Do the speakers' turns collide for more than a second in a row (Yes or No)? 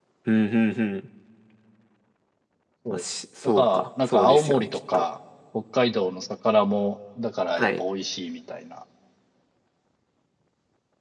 Yes